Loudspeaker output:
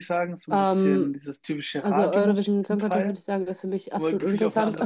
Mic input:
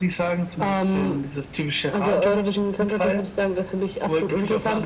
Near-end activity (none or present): none